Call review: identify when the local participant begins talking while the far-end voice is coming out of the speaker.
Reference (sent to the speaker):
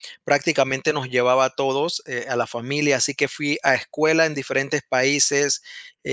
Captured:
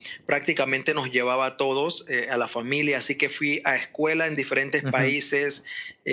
4.8 s

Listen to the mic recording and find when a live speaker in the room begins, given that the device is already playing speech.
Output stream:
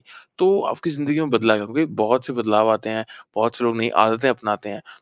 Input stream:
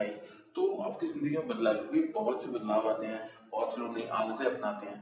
none

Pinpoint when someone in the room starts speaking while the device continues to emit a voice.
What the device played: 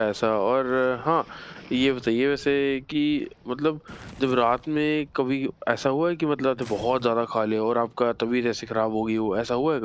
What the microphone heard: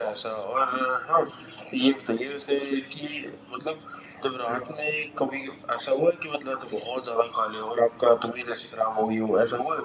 none

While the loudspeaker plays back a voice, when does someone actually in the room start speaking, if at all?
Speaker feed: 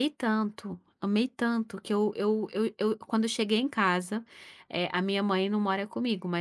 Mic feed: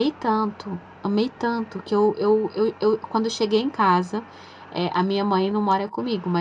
none

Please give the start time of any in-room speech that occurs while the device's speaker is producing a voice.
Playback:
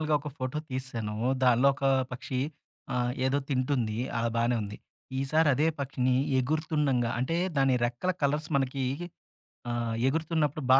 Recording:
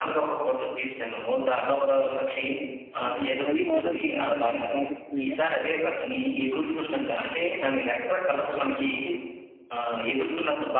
3.0 s

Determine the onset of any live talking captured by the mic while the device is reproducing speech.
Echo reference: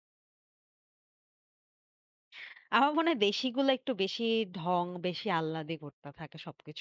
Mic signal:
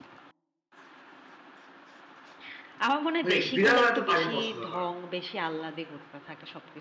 3.2 s

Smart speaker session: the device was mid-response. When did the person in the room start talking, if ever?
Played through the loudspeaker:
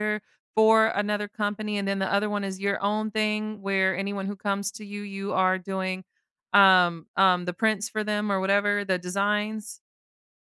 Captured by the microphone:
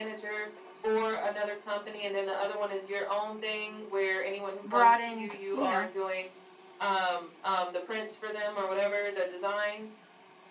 4.6 s

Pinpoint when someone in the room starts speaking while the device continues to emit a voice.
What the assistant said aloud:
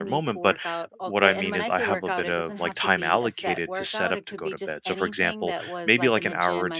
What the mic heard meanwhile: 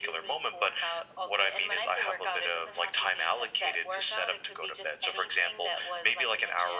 none

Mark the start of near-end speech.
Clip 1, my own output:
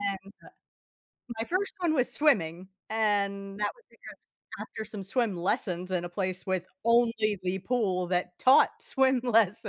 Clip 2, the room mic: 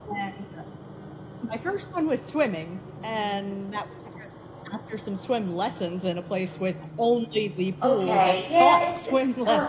7.8 s

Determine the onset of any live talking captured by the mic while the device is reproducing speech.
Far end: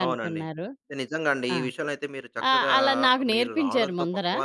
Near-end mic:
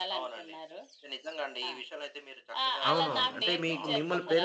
2.9 s

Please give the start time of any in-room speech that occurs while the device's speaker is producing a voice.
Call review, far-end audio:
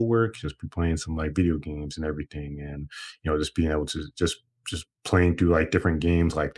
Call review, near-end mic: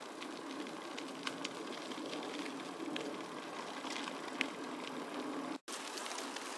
none

